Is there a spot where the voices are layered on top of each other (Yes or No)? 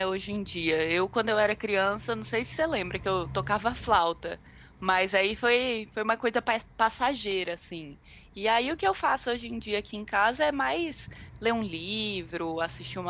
No